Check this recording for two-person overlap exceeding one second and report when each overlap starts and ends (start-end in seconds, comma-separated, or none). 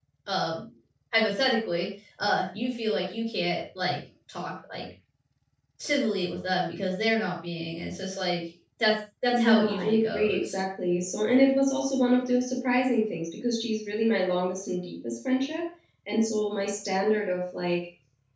9.3-10.5